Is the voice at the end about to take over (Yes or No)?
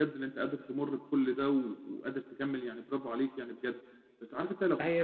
No